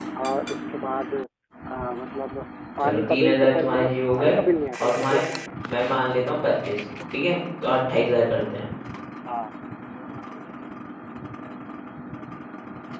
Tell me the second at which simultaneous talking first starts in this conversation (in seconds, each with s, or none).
2.8 s